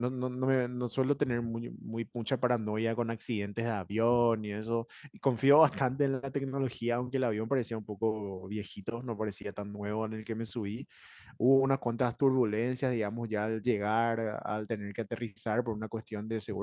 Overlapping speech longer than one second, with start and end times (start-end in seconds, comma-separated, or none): none